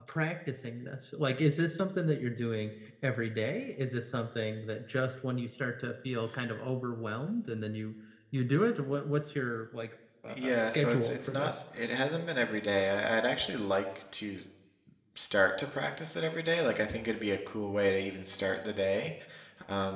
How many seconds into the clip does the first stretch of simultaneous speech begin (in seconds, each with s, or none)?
10.3 s